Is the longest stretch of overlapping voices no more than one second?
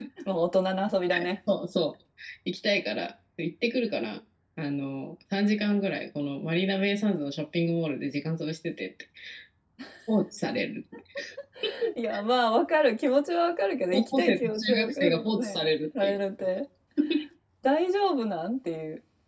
No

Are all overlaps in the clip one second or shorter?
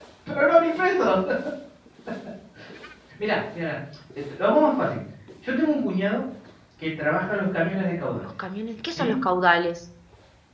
Yes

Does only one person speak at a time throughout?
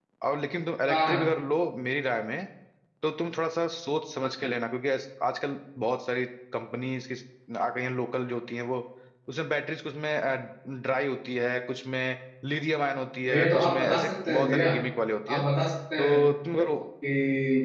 No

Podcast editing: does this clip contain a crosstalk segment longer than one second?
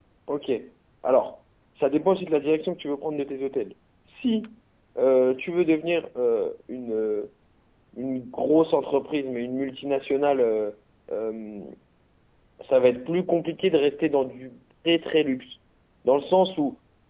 No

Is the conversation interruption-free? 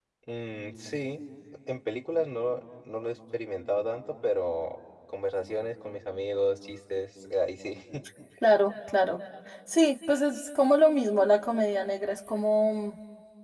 Yes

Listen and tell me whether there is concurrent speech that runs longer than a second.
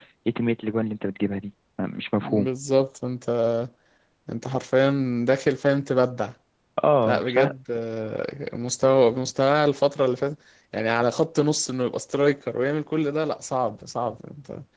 No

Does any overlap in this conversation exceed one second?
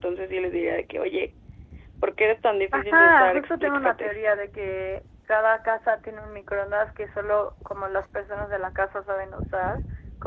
Yes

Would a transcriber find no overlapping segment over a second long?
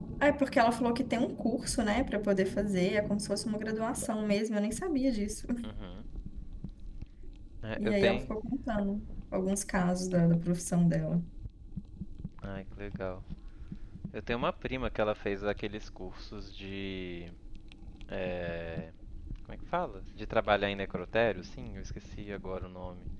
Yes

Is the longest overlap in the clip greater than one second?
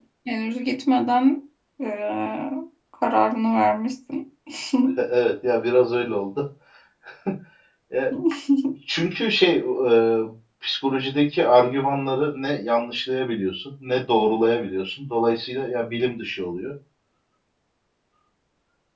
No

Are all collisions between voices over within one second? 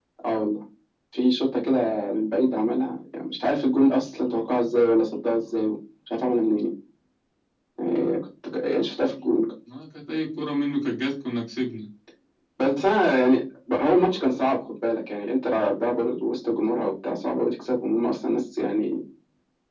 Yes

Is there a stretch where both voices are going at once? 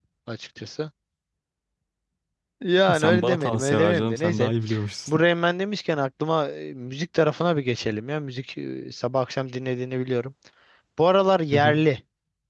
Yes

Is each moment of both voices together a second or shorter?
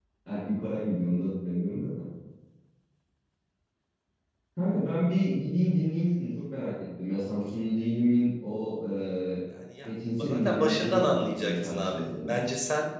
No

